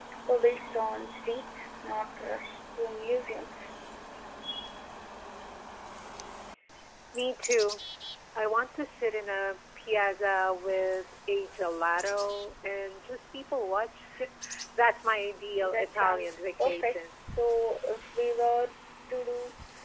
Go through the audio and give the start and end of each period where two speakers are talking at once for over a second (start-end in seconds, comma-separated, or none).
15.6-16.9